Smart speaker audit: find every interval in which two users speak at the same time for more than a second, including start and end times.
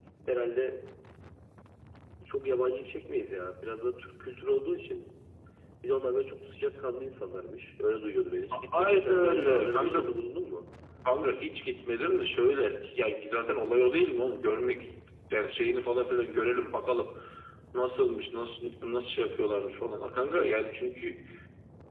8.8-10.0

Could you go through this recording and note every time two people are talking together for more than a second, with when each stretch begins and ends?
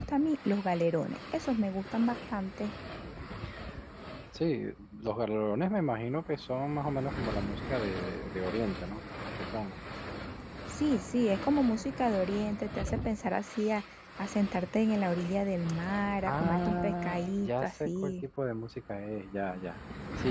16.2-18.1

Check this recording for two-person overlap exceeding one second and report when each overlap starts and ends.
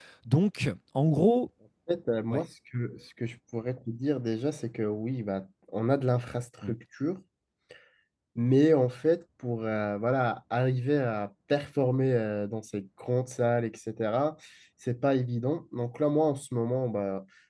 none

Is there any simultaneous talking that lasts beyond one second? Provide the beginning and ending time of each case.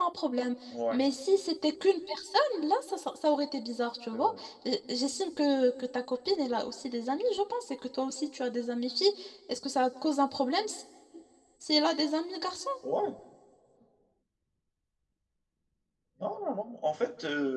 none

